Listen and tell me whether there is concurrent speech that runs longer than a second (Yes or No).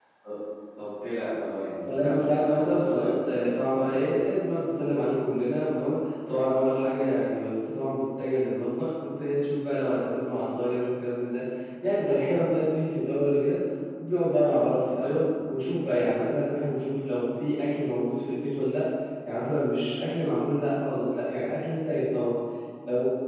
Yes